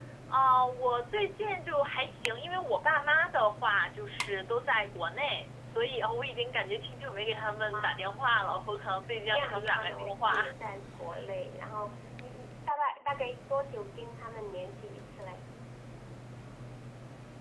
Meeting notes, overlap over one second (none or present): present